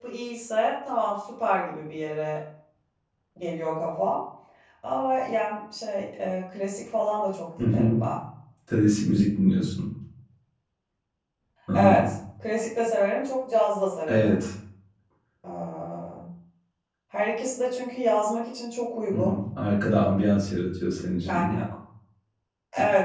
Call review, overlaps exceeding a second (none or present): none